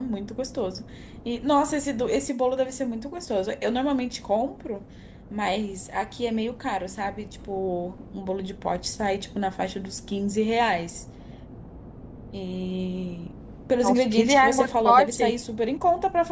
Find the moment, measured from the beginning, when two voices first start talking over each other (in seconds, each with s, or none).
13.8 s